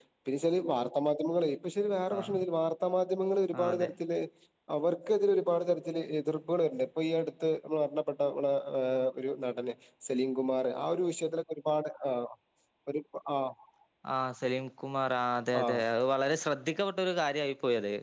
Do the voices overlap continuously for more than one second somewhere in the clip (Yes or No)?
No